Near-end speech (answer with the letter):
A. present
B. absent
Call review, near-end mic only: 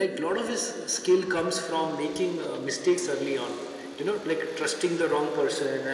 B